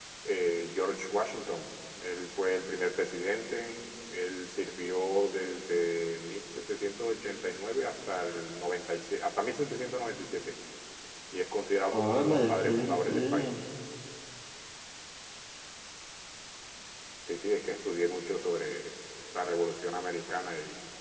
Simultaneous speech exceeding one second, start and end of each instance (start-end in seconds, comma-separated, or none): 11.9-13.5